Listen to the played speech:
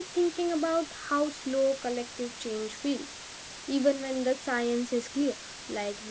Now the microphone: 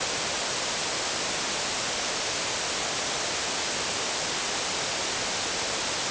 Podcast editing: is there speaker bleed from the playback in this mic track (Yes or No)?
No